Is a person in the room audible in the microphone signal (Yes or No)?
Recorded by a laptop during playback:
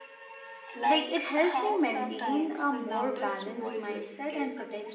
Yes